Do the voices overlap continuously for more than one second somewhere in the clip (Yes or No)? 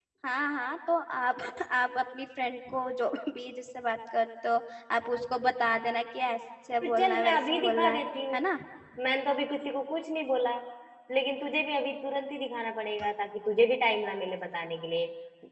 Yes